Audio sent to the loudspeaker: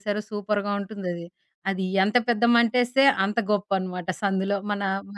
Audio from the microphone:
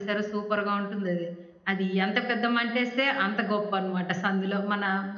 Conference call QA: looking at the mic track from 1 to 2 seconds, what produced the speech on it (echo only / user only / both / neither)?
echo only